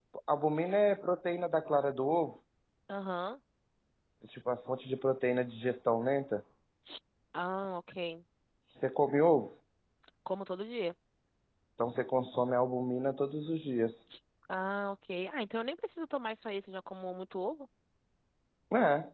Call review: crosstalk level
none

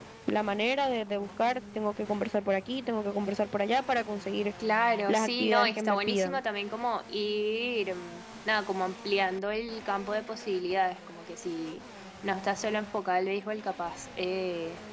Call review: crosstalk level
present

